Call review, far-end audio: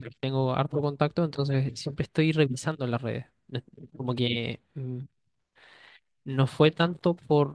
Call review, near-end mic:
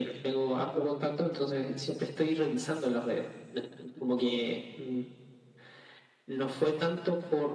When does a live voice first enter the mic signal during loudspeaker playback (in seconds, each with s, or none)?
none